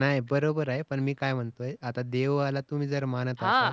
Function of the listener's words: taking over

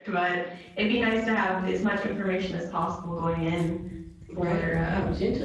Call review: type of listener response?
taking over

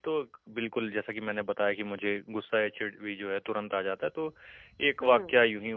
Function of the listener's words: listening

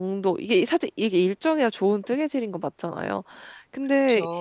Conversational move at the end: listening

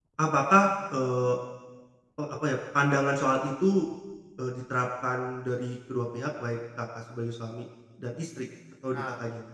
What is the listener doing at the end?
taking over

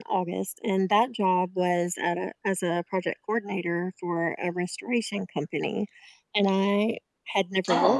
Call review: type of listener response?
listening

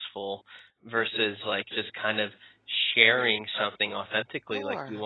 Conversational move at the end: listening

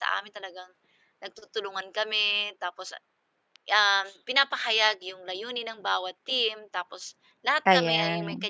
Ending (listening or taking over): listening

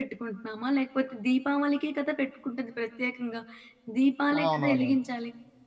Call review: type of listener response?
listening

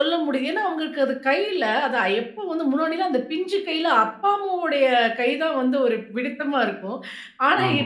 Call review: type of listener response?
listening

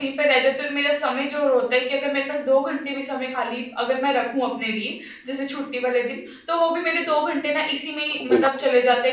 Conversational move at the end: listening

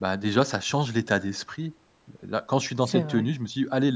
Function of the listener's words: listening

